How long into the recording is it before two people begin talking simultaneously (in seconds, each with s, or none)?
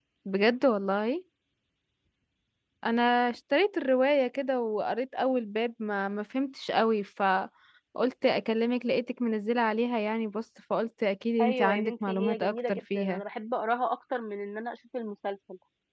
11.4 s